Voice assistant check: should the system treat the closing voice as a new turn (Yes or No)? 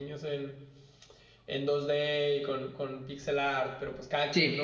No